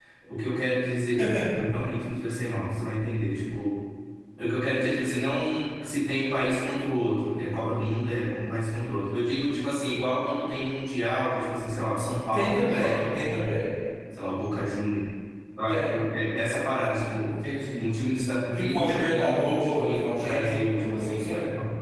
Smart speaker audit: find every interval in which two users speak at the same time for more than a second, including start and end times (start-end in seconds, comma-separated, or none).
12.3-13.7, 18.5-21.2